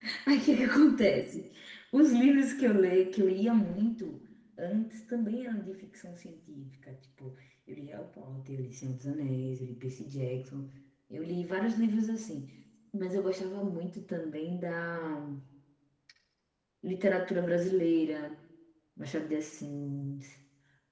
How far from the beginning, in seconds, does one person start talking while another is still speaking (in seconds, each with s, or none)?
none